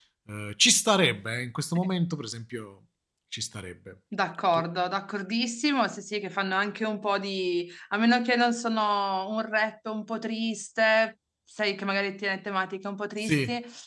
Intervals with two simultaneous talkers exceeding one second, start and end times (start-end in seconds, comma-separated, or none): none